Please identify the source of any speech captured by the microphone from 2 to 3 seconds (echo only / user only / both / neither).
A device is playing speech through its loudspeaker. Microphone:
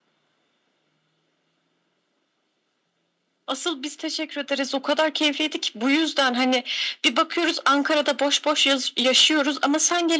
neither